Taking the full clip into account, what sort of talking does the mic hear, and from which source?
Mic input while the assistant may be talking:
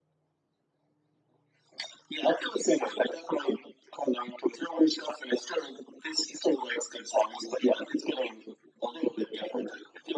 echo only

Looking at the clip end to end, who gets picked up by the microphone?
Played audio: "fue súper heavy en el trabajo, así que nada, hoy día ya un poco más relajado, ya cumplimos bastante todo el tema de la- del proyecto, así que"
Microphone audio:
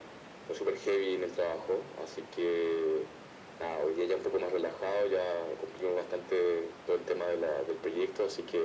echo only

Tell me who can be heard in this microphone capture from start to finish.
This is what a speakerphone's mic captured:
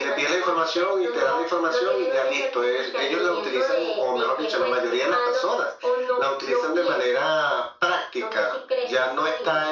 echo only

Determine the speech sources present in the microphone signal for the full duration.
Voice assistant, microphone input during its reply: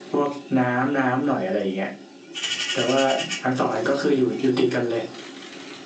echo only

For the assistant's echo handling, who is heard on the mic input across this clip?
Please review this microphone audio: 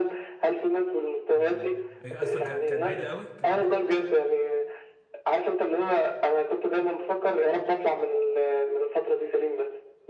both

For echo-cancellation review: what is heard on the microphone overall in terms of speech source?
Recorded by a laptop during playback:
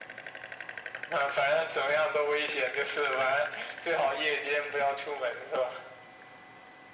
echo only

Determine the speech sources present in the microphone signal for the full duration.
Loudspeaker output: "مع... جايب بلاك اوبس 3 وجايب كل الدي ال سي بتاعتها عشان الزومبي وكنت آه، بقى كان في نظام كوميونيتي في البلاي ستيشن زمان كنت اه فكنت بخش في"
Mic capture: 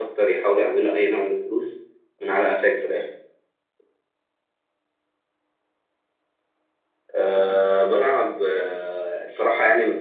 user only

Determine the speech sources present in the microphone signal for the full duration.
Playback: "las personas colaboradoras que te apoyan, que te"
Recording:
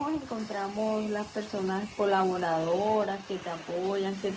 echo only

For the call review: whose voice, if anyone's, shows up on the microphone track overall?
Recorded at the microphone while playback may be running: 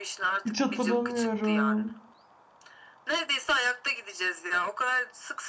both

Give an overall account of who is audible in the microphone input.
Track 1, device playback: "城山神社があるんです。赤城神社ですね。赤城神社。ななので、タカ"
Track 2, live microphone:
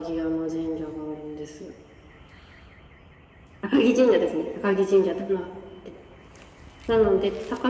echo only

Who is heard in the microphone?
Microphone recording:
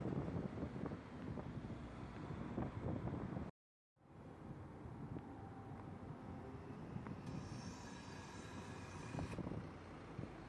neither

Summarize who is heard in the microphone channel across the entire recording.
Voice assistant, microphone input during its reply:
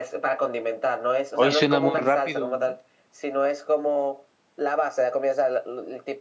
both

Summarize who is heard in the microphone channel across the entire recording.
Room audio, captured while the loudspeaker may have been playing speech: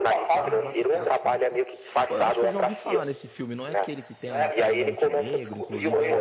both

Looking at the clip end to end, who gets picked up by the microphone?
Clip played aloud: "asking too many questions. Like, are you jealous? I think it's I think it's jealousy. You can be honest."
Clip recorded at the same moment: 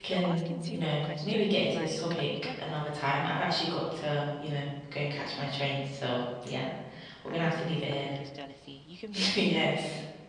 both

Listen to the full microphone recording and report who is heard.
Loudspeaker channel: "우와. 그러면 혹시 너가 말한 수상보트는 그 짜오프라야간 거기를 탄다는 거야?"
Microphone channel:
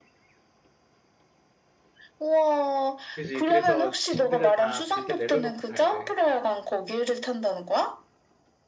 both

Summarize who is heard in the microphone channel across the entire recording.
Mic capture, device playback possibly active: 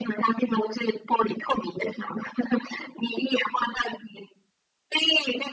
echo only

